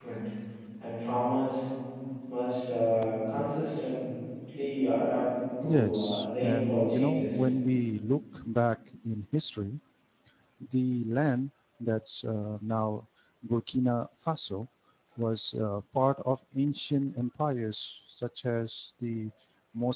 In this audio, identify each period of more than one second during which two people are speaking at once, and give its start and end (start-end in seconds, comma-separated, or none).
5.6-7.5